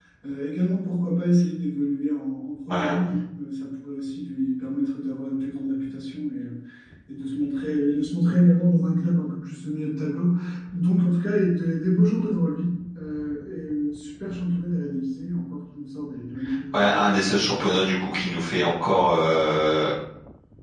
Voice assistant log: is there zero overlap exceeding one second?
Yes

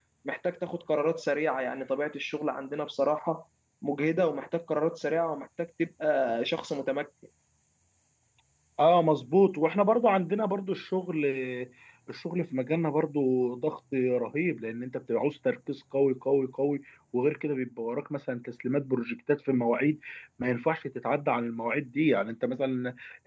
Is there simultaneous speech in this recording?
No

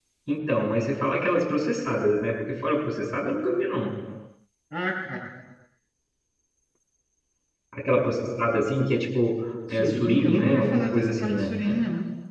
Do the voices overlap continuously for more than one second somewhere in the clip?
Yes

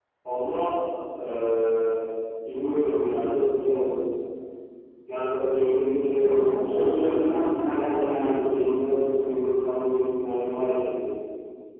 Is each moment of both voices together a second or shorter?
No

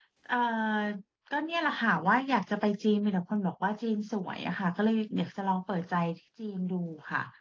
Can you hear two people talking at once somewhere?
No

